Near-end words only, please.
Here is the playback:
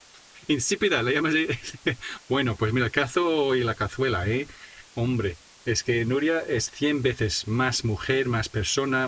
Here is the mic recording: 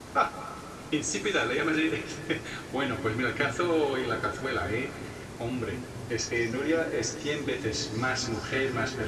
none

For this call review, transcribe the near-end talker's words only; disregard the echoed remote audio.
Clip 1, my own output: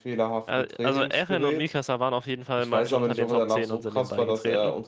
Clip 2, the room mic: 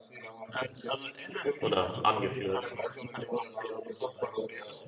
oder angeführt?

